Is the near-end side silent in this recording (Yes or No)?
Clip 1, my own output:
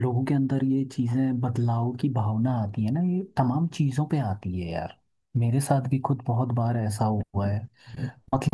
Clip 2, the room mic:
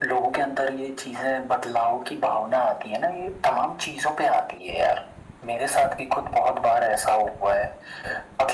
Yes